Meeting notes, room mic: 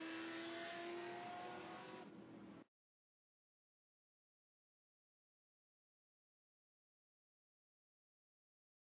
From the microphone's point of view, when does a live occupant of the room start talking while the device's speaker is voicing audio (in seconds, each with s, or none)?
none